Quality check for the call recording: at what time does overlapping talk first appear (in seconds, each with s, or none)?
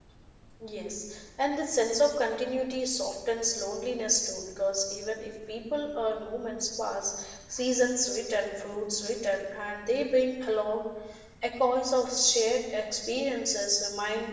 none